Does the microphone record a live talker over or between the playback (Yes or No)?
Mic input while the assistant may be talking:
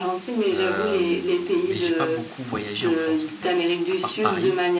Yes